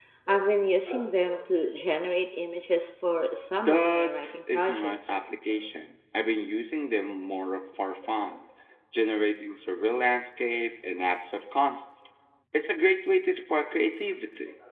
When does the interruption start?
3.6 s

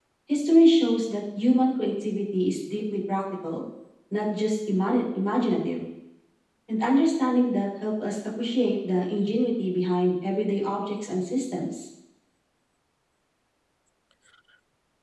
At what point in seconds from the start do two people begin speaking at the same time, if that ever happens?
none

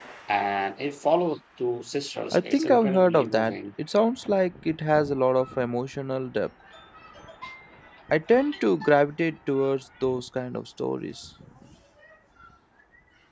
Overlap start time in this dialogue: 2.3 s

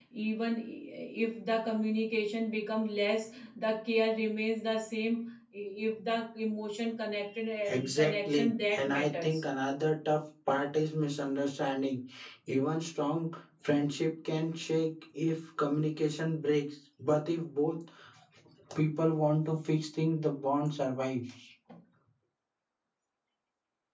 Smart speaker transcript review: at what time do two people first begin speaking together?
7.9 s

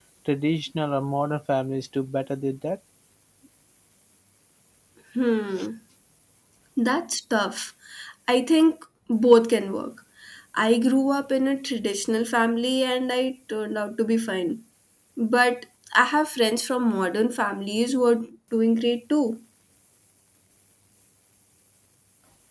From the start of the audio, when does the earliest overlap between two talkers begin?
none

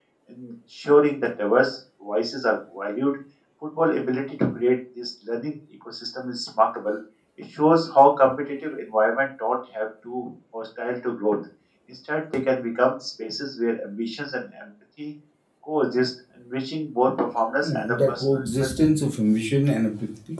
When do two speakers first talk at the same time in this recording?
17.6 s

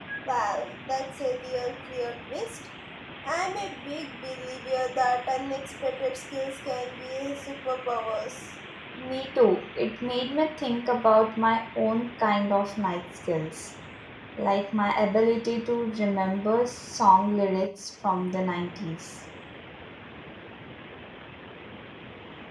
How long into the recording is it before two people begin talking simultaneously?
none

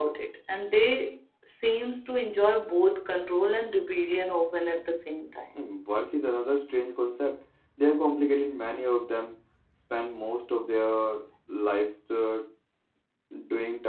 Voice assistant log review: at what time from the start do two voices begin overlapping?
none

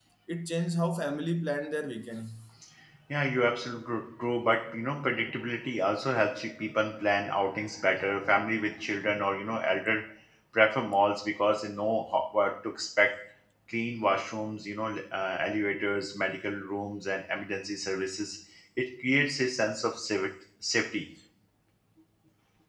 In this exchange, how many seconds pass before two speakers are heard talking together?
none

